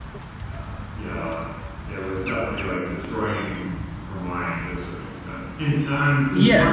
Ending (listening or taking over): listening